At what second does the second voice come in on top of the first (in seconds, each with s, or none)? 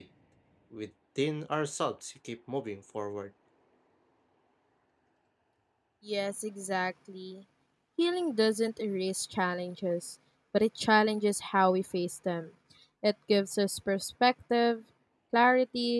none